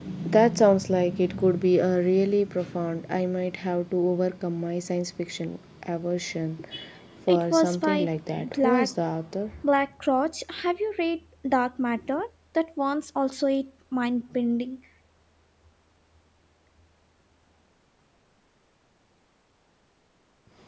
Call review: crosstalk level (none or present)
present